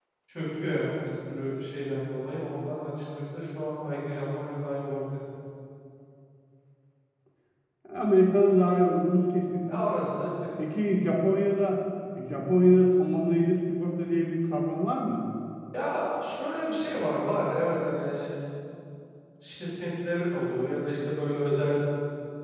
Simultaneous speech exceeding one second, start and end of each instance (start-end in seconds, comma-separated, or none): none